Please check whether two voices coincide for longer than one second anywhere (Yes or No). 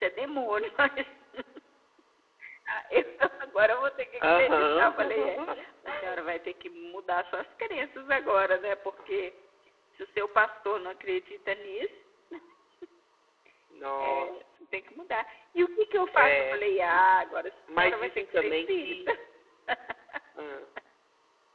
Yes